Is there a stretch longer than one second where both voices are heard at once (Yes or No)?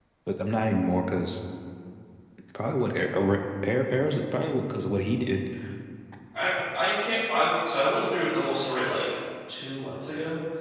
No